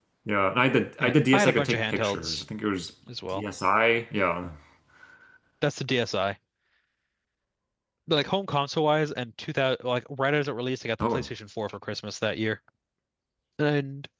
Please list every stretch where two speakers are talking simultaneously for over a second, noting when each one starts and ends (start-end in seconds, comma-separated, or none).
1.0-2.4